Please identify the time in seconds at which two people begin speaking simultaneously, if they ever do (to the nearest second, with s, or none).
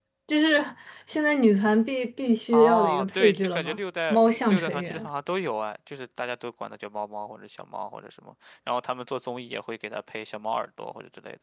3 s